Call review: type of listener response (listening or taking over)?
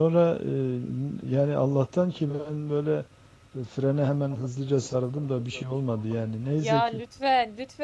taking over